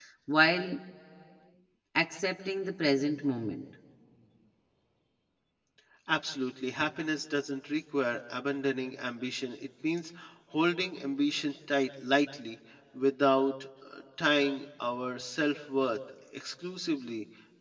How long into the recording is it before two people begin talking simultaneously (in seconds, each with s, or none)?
none